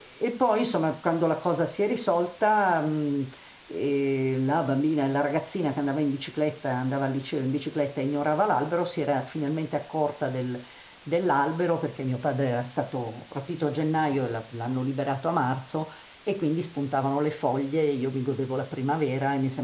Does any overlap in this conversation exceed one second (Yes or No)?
No